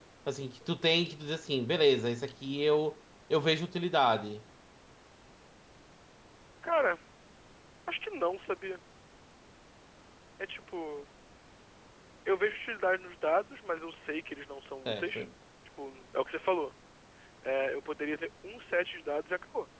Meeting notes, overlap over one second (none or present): none